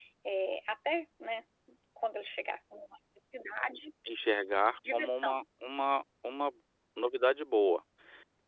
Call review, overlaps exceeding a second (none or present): none